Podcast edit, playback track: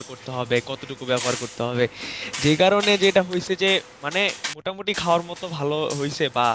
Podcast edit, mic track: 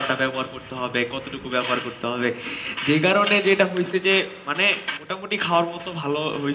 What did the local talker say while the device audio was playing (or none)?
none